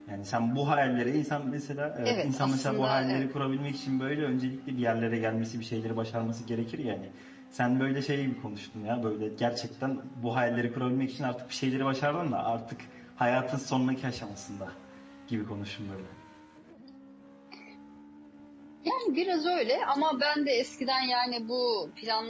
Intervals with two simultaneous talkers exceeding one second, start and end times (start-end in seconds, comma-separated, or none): 2.1-3.3